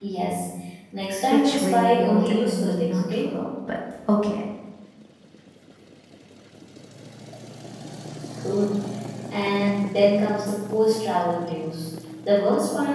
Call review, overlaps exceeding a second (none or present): present